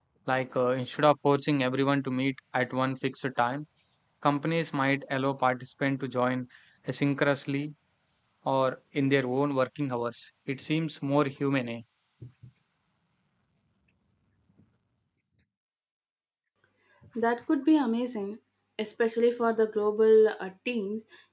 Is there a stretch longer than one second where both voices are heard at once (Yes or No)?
No